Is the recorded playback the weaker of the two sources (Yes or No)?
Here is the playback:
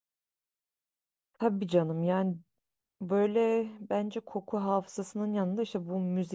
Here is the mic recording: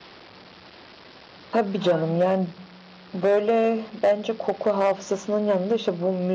No